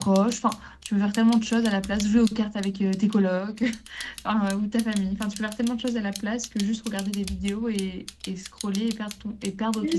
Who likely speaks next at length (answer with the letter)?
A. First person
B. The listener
B